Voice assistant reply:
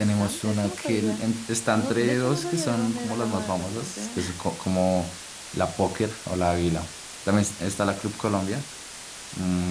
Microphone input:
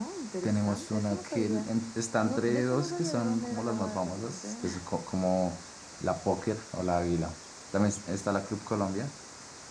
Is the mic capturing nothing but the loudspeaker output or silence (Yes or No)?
Yes